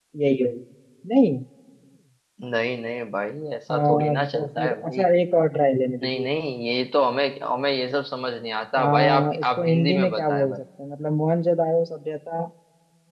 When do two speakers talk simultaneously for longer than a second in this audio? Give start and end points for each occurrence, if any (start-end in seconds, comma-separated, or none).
3.7-5.0, 8.8-10.6